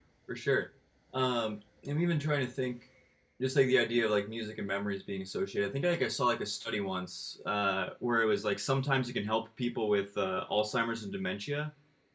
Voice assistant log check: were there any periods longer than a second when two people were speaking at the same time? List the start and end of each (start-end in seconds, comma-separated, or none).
none